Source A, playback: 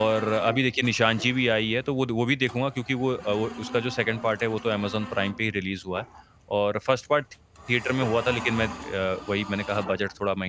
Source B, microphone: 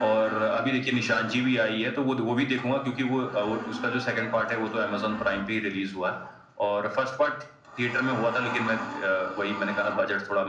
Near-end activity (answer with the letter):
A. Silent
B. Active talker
A